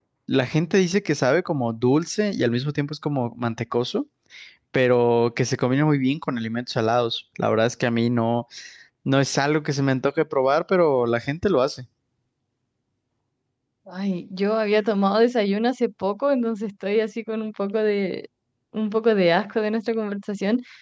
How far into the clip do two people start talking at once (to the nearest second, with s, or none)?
none